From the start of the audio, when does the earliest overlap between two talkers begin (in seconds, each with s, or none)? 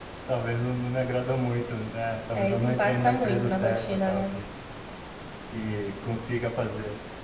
2.3 s